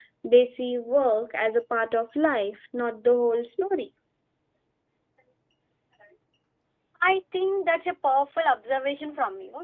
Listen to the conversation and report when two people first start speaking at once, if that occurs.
none

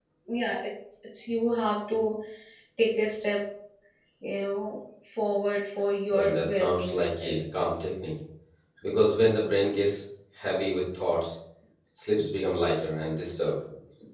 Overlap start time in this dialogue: 6.1 s

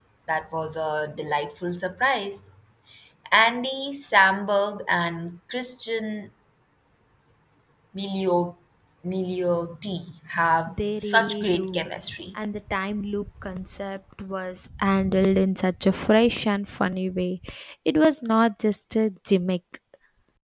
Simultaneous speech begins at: 10.7 s

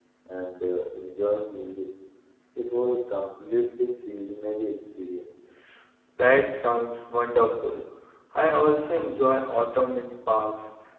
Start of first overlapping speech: none

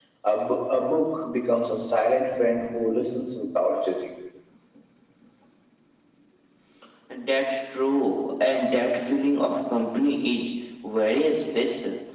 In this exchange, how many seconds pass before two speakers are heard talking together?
none

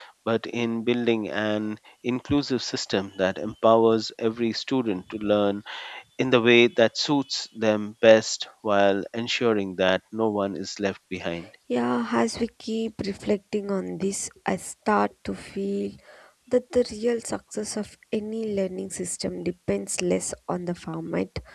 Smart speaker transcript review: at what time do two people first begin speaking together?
none

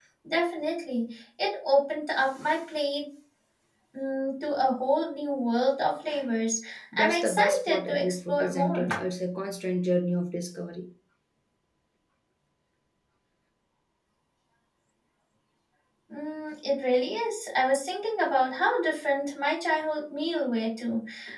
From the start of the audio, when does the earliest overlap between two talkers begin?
6.9 s

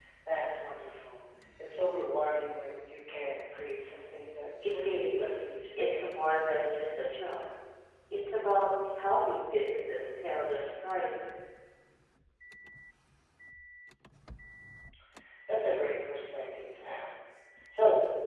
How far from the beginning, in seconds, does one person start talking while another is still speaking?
4.6 s

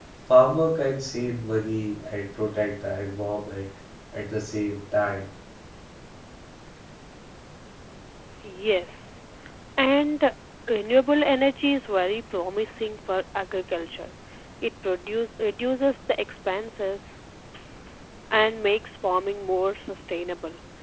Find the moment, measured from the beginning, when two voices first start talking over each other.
none

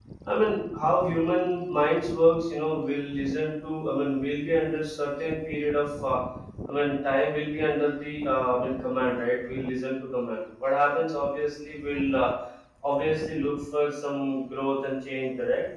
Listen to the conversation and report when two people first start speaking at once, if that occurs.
none

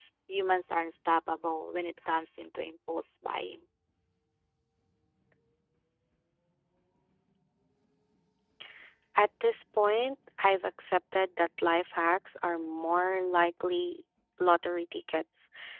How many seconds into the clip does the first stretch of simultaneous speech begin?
none

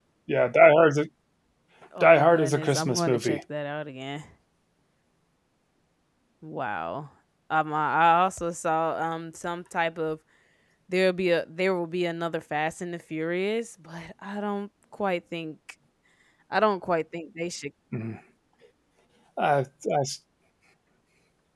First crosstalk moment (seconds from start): 2.0 s

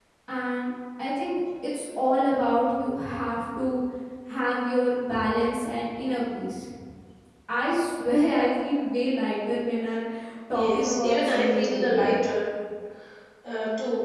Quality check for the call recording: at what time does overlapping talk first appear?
10.5 s

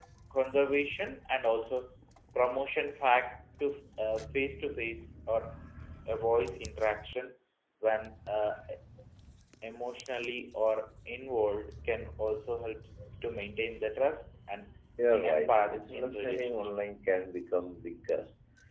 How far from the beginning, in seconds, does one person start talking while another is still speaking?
15.2 s

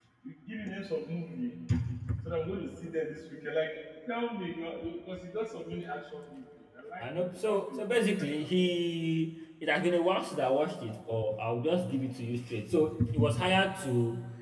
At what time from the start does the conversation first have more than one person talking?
7.0 s

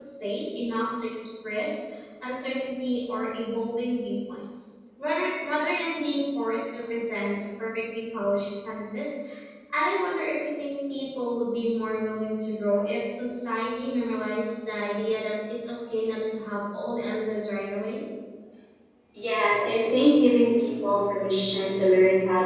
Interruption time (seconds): none

